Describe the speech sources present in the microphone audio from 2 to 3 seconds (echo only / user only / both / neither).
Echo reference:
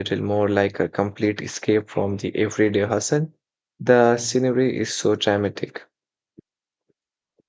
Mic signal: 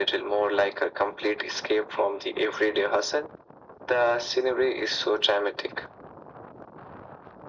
echo only